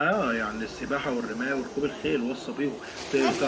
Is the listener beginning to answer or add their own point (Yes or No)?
Yes